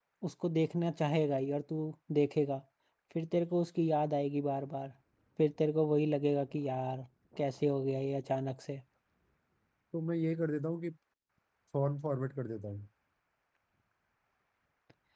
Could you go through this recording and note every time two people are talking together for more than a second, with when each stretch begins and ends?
none

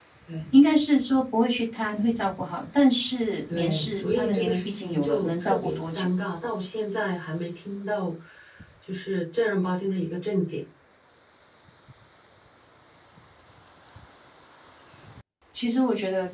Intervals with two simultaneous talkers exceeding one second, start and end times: 3.5-6.1

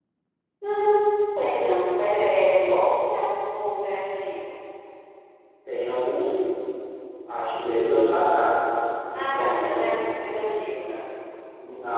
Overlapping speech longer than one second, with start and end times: 9.2-10.6

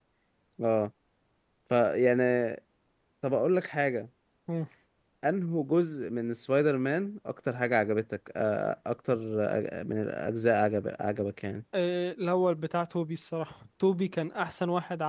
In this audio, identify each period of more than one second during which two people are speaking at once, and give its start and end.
none

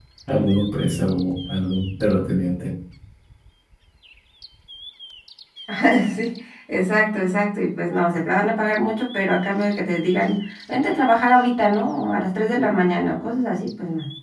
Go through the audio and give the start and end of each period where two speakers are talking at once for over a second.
none

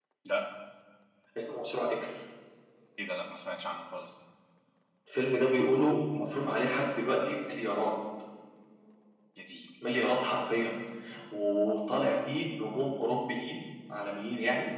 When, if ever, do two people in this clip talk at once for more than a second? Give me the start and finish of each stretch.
none

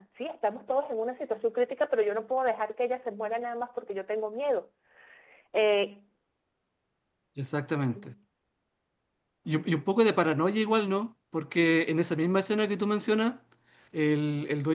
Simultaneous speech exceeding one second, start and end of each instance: none

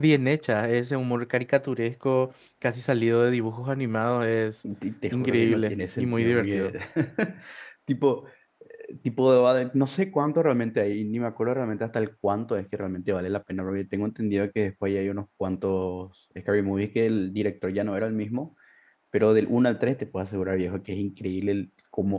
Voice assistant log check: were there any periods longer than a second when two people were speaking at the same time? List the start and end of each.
5.1-6.7

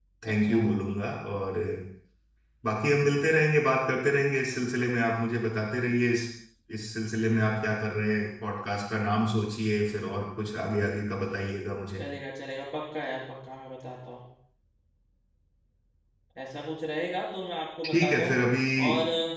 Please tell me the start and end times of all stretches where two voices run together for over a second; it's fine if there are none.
none

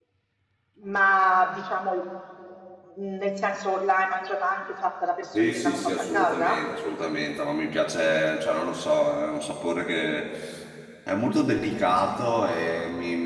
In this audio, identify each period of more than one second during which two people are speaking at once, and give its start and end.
5.3-6.6

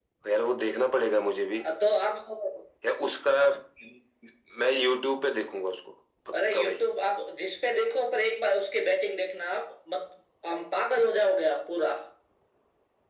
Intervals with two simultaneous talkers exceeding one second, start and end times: none

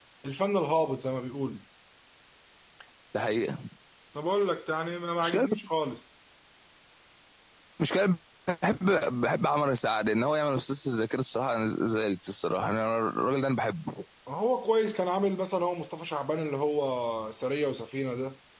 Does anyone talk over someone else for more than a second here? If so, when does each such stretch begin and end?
none

